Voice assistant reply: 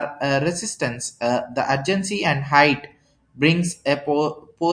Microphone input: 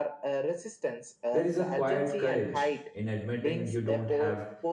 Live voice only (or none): There is a quiet courage in admitting you don't have